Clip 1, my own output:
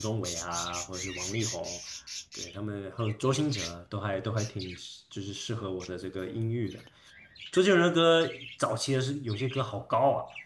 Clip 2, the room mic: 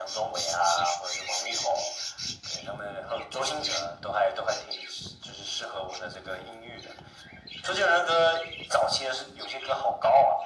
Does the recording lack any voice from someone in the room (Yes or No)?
Yes